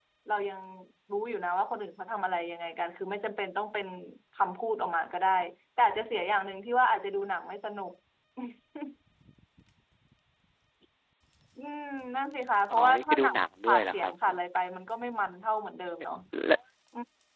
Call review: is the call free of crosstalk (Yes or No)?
No